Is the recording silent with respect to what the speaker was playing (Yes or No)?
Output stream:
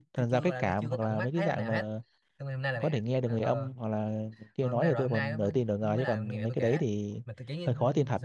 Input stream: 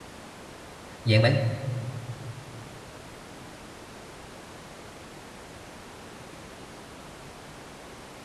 Yes